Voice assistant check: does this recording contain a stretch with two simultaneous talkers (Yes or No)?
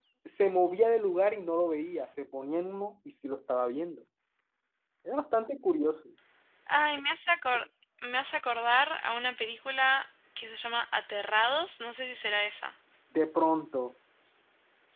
No